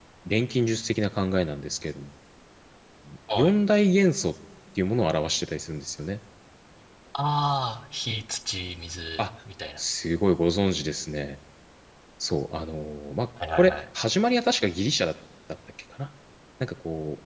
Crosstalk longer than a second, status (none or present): none